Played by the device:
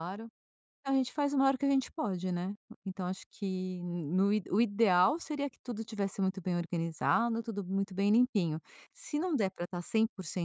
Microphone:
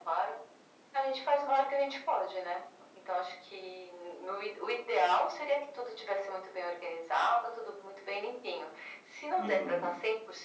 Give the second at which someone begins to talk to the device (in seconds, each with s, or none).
9.4 s